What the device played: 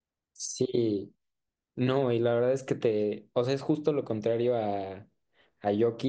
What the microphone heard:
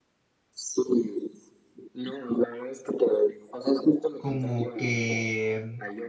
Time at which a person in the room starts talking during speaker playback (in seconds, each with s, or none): 4.2 s